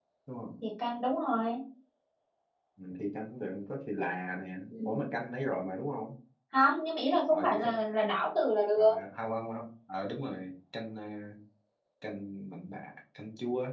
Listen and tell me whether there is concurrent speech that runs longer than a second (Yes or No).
No